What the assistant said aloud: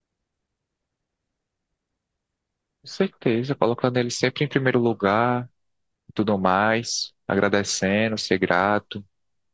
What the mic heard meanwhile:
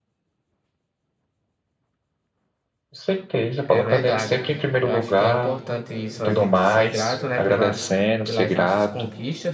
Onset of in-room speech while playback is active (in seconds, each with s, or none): 3.6 s